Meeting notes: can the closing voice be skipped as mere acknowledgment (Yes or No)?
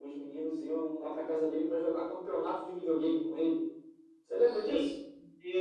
No